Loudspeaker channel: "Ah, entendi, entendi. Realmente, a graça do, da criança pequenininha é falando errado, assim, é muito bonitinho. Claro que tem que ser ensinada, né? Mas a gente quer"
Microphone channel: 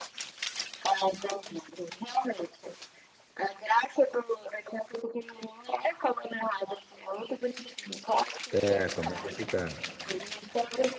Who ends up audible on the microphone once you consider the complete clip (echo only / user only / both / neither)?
both